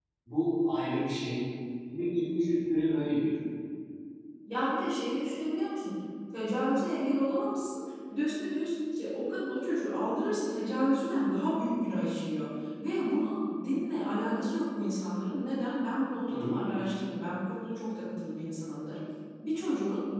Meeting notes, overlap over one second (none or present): none